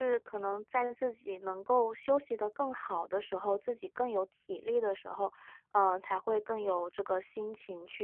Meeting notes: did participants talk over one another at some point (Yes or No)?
No